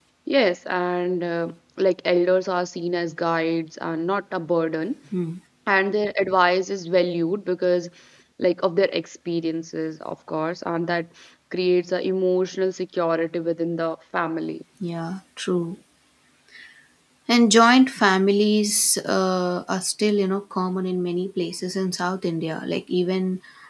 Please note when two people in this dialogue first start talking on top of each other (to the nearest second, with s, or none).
none